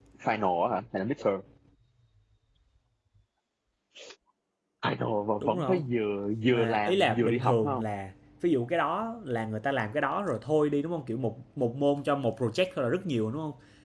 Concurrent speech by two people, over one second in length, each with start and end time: 6.5-7.8

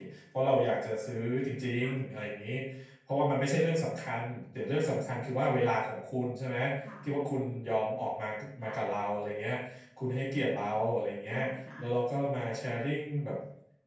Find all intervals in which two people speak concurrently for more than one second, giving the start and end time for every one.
none

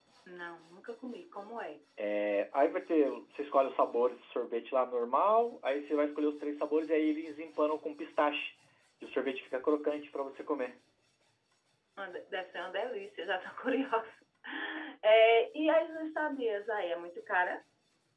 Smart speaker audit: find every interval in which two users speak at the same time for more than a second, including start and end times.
none

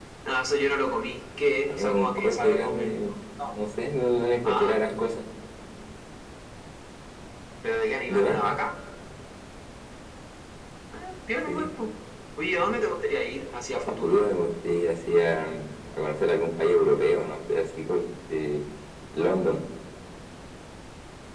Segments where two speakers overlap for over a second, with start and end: 1.7-3.0

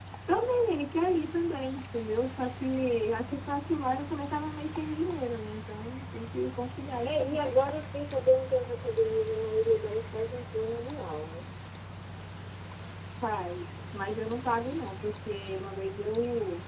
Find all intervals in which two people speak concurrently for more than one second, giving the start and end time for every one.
none

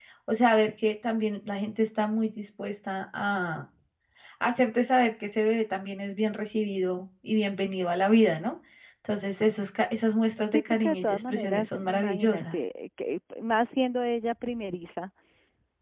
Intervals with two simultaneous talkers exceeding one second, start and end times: 10.5-12.5

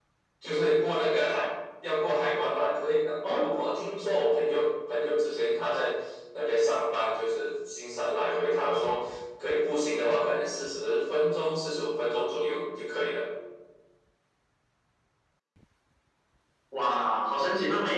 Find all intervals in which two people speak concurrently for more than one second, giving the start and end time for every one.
none

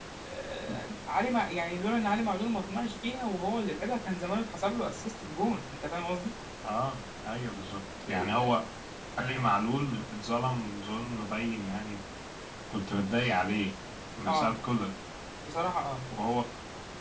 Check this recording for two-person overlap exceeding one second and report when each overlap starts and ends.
none

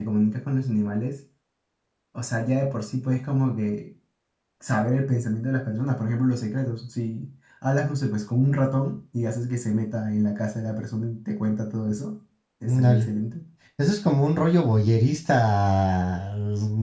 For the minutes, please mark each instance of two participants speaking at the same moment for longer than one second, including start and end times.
none

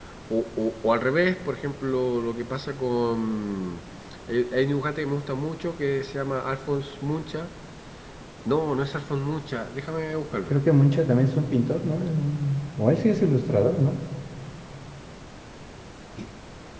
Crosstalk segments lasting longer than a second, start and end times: none

